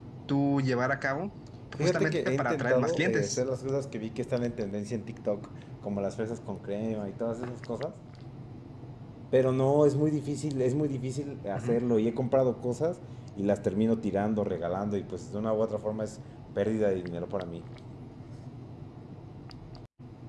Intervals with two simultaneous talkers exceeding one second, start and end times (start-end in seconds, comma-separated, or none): 1.8-3.4